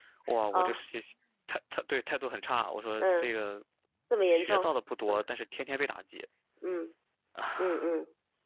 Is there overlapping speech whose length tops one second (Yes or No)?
No